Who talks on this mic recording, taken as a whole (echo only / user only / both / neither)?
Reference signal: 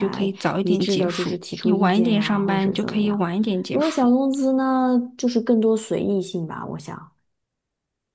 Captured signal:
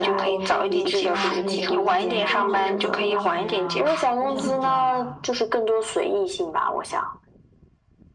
both